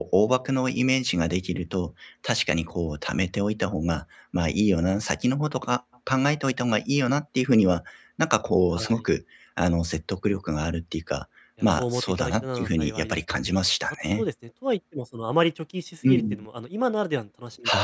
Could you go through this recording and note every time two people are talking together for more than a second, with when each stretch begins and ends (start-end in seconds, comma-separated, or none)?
11.6-13.2